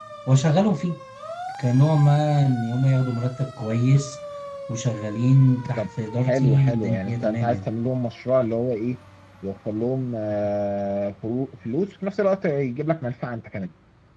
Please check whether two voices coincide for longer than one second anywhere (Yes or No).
Yes